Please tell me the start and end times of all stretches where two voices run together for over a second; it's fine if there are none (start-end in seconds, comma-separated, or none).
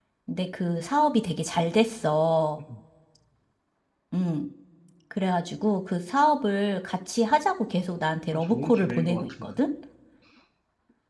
8.3-9.6